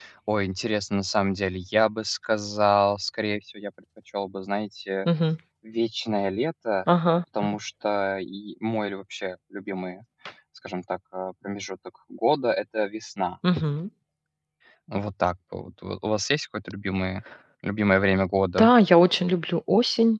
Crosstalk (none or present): none